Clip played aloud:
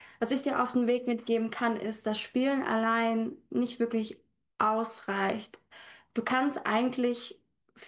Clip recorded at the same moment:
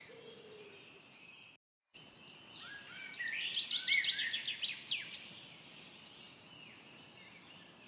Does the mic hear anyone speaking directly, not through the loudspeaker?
No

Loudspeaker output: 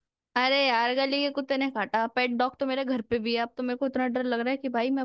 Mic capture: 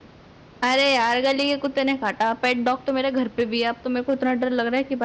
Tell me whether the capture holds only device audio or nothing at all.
Yes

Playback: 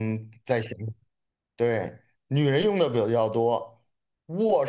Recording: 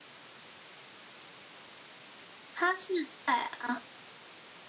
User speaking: Yes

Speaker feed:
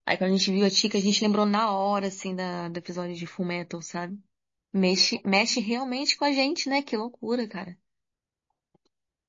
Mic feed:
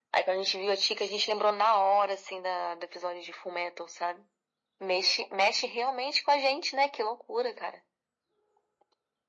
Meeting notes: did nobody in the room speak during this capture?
Yes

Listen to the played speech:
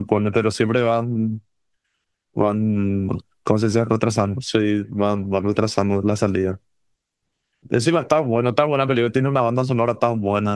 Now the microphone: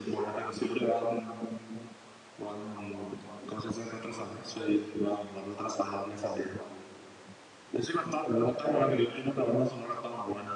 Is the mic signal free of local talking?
Yes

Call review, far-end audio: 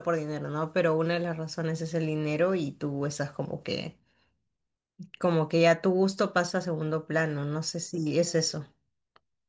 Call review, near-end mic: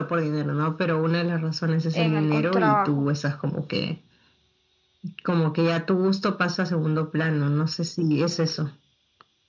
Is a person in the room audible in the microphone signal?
Yes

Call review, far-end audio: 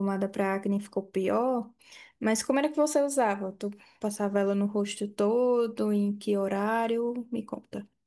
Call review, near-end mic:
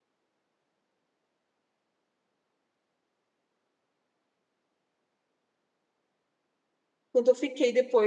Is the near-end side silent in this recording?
No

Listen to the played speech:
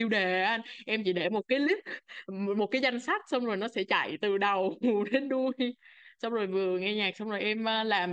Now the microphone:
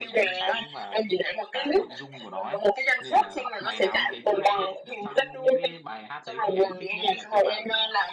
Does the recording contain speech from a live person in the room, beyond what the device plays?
Yes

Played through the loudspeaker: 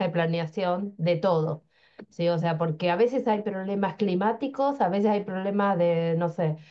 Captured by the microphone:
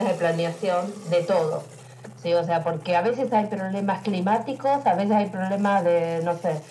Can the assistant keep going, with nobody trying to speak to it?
Yes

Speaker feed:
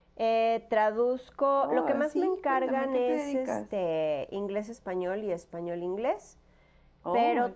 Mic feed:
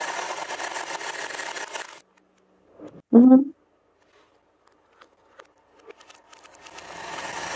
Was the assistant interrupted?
Yes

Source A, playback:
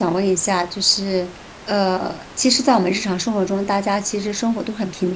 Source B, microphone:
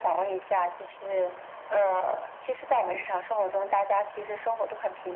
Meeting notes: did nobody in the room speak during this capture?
Yes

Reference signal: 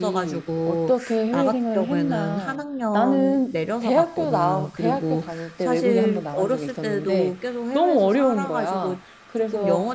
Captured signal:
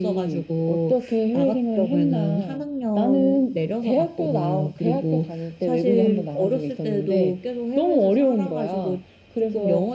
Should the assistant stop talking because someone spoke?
No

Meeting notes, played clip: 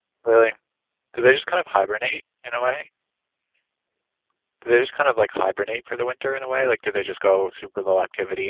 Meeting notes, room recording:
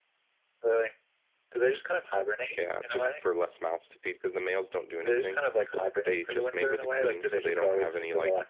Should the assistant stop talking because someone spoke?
Yes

